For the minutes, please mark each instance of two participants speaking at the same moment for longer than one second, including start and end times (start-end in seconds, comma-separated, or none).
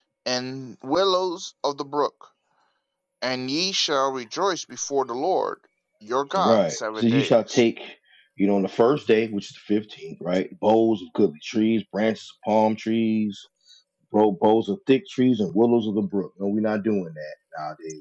6.4-7.6